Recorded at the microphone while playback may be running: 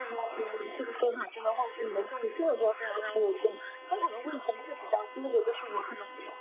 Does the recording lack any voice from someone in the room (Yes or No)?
Yes